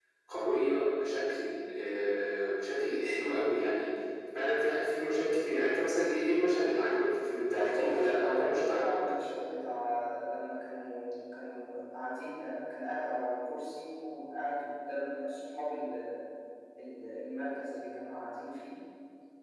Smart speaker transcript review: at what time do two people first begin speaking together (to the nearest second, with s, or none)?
8 s